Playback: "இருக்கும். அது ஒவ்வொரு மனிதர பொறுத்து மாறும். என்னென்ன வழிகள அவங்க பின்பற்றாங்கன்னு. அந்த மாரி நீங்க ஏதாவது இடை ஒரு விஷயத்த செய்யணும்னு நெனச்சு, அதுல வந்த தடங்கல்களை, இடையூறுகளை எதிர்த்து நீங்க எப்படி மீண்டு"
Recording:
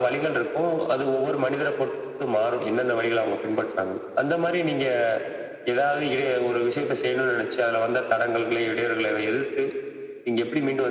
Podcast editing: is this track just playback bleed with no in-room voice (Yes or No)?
Yes